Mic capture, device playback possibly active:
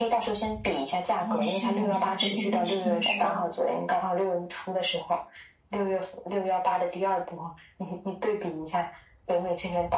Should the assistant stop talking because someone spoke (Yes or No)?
Yes